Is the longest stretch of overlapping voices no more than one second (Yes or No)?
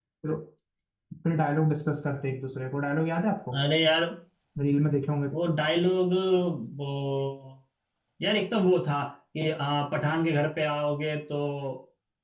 Yes